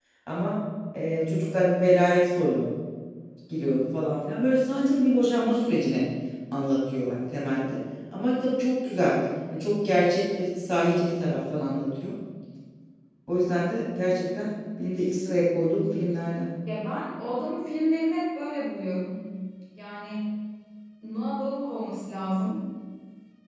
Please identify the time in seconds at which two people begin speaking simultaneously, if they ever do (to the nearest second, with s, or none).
none